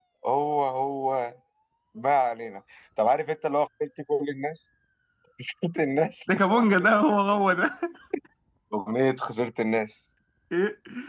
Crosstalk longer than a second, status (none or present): none